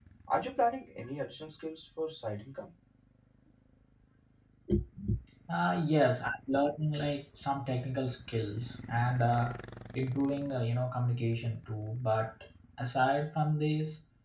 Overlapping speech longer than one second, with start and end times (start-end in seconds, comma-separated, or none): none